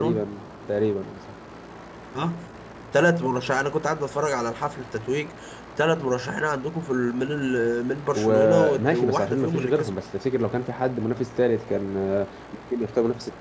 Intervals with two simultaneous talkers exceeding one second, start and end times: 8.2-10.0

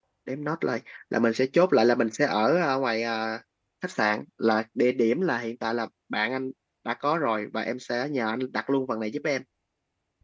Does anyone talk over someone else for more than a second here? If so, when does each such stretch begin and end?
none

